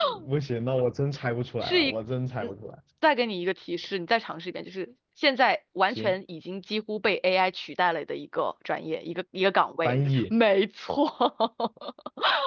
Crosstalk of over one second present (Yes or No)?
No